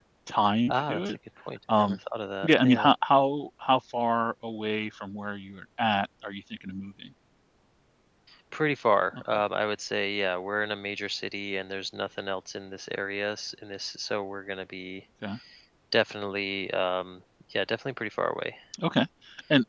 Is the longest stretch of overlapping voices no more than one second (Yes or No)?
Yes